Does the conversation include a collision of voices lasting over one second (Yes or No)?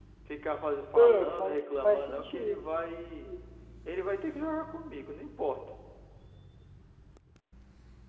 Yes